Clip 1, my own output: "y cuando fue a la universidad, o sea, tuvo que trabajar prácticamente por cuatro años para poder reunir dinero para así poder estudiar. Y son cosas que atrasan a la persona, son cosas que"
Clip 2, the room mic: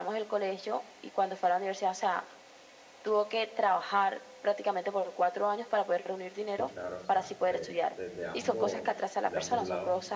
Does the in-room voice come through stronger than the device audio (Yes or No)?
No